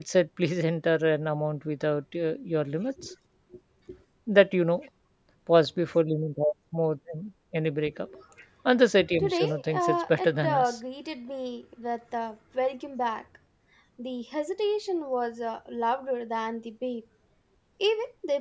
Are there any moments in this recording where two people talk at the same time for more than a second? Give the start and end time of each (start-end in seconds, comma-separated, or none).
9.2-10.8